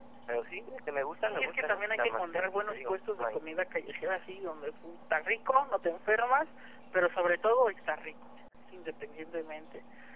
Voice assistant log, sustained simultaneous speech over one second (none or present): present